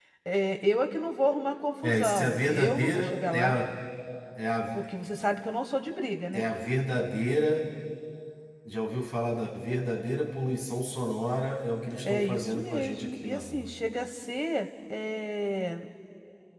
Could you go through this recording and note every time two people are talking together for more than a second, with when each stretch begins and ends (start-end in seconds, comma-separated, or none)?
1.8-3.6, 12.0-13.6